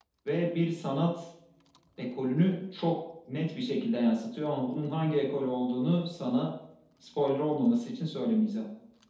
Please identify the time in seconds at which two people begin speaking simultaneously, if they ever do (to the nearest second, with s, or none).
none